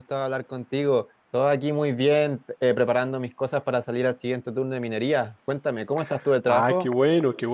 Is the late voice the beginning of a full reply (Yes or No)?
Yes